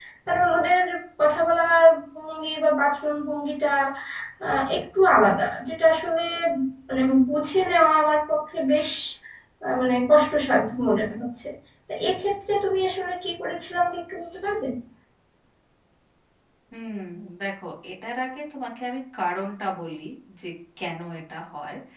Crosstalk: none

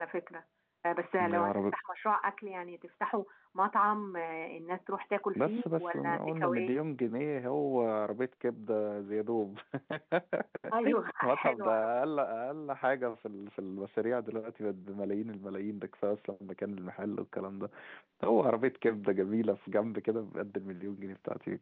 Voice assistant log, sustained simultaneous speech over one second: present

